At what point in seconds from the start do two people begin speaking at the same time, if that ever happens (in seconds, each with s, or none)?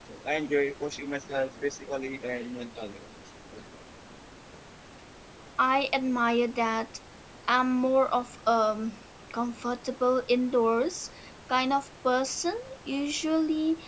none